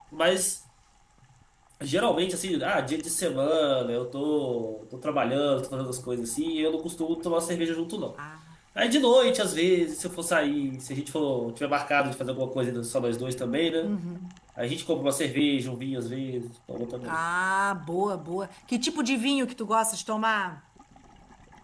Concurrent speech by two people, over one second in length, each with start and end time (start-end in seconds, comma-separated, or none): none